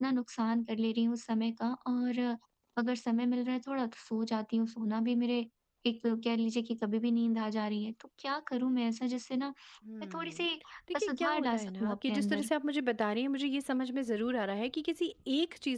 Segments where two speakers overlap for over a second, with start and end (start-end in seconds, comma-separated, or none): 11.0-12.5